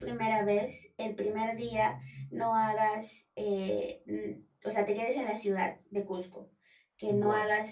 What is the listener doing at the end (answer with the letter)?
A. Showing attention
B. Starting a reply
A